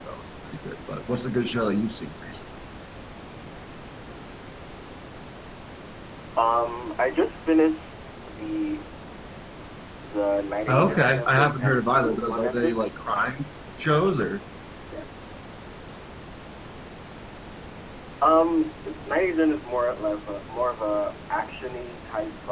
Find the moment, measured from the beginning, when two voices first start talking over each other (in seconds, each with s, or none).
10.7 s